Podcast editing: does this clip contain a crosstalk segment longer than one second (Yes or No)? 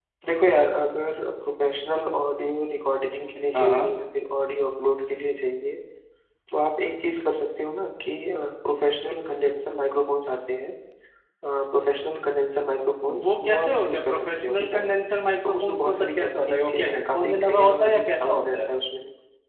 Yes